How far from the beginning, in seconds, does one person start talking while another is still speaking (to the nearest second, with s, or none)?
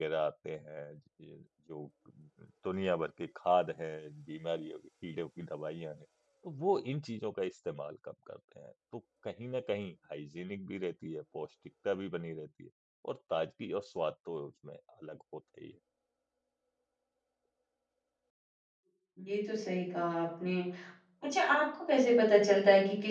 none